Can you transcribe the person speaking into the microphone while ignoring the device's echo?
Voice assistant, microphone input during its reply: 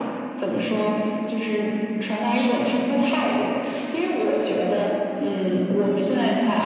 none

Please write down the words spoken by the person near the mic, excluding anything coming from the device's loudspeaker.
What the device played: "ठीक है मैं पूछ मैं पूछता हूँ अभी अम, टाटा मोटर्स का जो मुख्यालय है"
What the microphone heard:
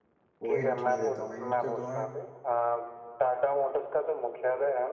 वो हिंट नहीं देता हूँ मैं हिंट क्यों दूंगा

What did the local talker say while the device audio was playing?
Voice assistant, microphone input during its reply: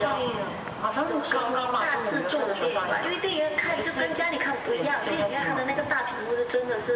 none

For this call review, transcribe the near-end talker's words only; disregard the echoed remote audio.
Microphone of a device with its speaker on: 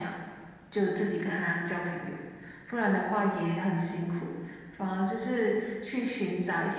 none

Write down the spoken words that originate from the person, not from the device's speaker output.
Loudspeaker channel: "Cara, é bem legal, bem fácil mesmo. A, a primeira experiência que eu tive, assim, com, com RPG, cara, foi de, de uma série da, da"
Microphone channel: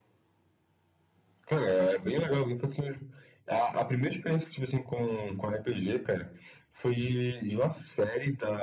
none

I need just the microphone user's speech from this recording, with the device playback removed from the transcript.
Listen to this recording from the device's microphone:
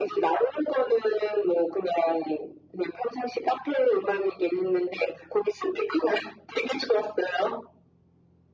none

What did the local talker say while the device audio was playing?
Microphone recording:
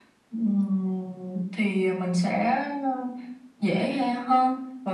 none

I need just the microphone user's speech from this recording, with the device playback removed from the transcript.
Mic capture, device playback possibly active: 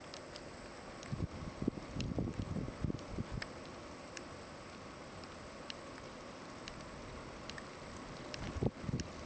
none

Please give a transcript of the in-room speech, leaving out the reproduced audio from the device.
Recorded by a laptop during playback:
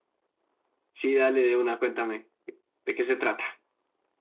Sí, dale de una, cuéntame. ¿De qué se trata?

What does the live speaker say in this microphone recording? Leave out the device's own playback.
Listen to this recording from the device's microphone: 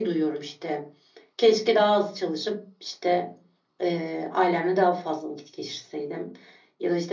none

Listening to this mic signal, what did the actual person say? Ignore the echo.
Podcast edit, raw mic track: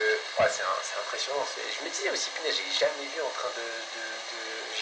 none

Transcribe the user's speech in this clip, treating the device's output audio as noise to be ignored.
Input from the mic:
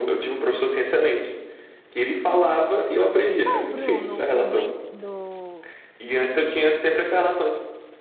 Qual, Bruno? O do, en- do,

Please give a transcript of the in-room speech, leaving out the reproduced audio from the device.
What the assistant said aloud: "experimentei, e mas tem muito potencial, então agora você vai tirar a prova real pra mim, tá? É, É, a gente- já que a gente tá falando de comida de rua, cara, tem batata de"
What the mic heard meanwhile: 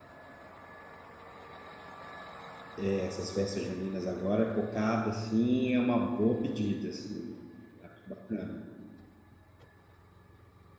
é, essas festas juninas agora, cocada, assim, é uma boa pedida, assim. Acho bacana.

